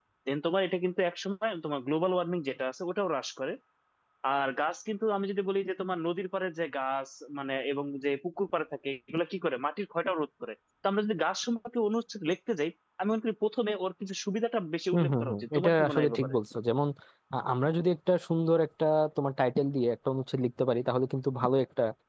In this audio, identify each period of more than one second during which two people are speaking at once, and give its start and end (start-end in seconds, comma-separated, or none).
14.9-16.4